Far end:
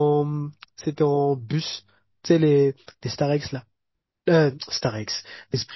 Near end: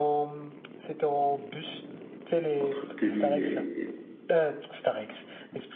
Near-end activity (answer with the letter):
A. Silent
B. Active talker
B